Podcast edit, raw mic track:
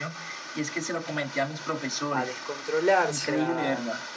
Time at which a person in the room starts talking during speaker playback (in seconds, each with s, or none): 2.1 s